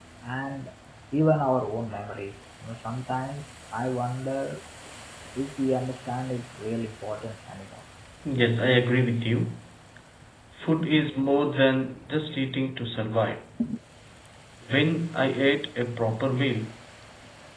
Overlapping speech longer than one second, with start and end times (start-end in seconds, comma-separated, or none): none